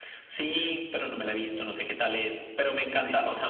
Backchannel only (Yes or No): Yes